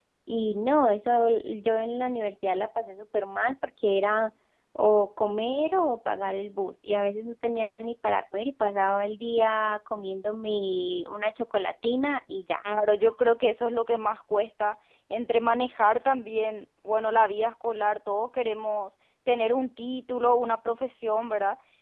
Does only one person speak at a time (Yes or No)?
Yes